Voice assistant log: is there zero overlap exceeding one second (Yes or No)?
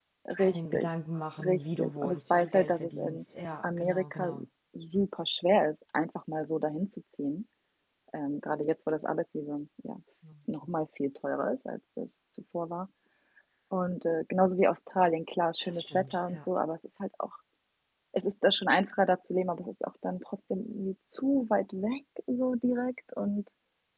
No